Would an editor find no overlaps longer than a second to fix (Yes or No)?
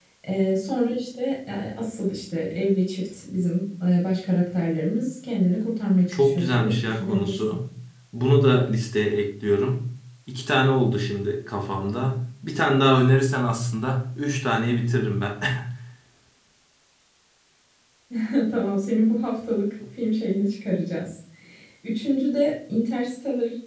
No